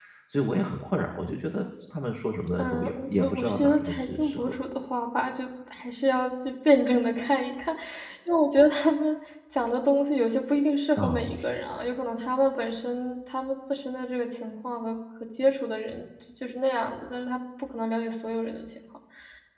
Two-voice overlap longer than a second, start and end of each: 2.6-4.6

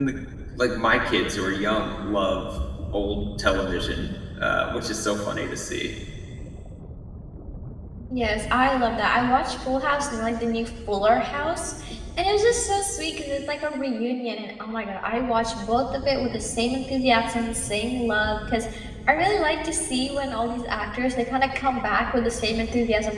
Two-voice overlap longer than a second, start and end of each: none

